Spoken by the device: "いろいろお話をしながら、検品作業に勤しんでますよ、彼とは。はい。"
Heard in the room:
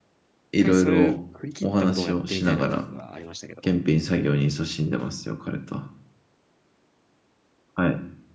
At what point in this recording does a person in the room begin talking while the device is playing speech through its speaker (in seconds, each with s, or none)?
0.6 s